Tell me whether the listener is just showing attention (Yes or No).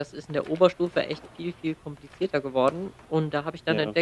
Yes